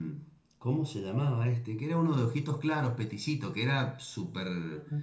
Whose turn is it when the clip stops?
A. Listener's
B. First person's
A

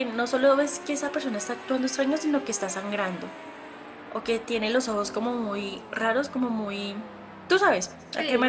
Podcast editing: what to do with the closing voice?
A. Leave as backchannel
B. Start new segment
B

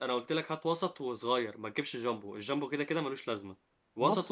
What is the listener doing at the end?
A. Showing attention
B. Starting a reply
B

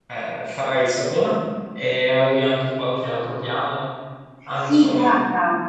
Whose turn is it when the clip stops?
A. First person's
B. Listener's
B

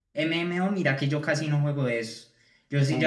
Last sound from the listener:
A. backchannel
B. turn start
A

